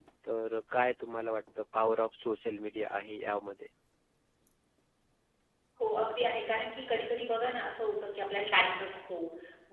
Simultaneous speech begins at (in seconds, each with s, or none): none